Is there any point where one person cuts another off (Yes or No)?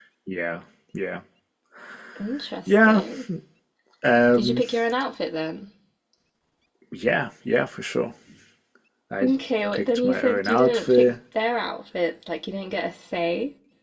Yes